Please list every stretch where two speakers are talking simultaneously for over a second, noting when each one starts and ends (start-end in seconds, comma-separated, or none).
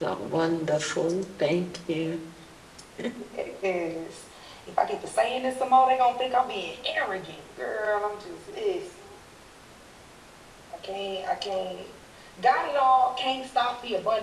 none